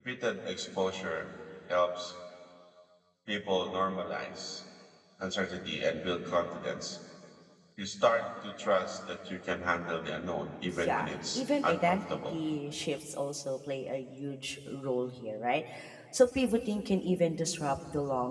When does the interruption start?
11 s

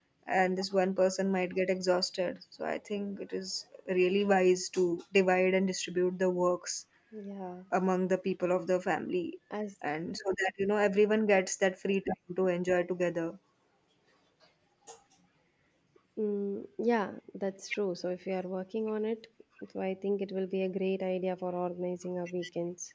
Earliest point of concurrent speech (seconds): none

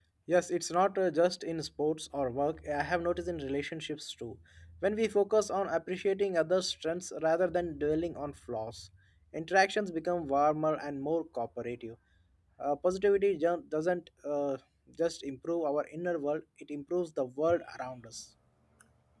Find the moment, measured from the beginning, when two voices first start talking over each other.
none

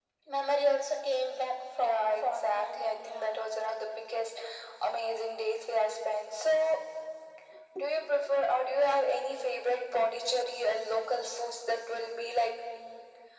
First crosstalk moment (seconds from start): 2 s

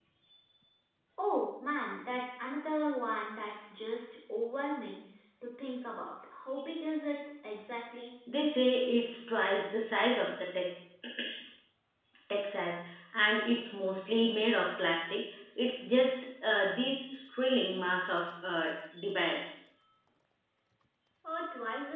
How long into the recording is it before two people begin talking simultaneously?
none

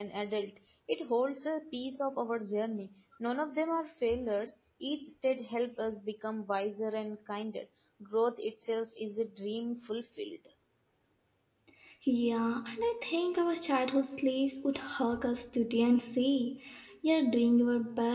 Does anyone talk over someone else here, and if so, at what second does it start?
none

